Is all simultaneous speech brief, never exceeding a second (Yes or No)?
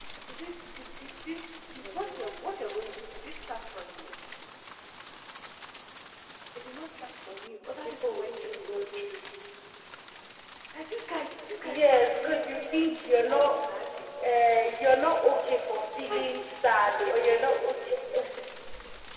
No